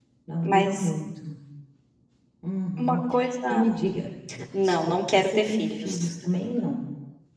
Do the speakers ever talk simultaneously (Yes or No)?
Yes